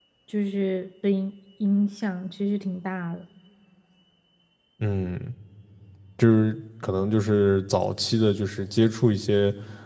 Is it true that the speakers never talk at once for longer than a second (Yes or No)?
Yes